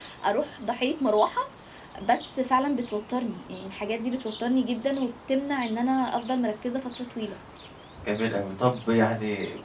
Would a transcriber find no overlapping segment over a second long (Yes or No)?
Yes